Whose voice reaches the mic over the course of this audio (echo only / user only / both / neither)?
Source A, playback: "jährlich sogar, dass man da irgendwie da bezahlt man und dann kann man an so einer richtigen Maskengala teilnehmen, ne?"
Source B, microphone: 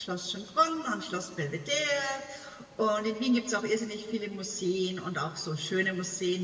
user only